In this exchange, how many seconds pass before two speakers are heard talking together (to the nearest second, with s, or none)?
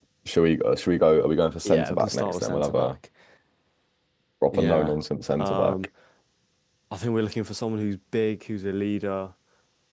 2 s